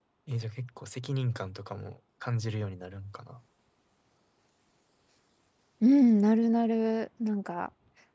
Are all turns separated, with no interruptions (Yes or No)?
Yes